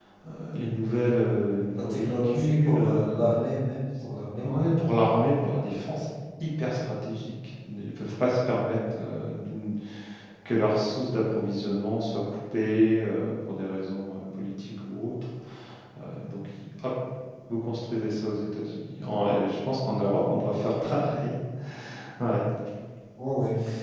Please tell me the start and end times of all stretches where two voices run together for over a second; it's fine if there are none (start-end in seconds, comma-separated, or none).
1.7-3.2